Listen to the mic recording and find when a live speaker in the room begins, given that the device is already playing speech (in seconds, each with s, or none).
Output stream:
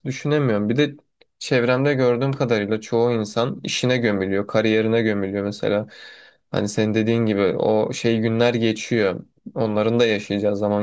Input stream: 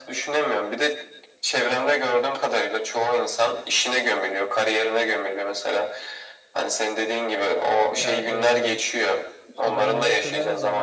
7.9 s